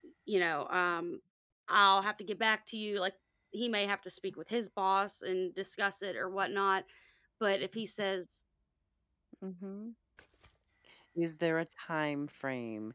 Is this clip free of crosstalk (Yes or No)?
Yes